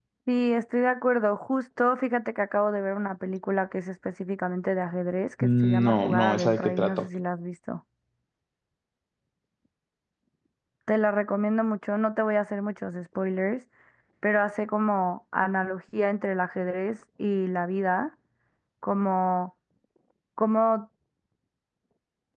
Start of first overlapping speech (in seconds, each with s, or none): 5.4 s